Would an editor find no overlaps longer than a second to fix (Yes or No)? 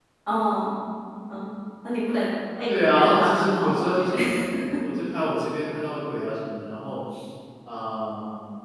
No